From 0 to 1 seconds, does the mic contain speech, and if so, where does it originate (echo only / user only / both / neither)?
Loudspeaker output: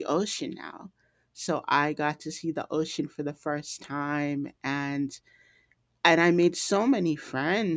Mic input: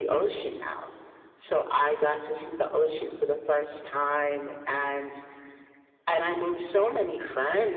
echo only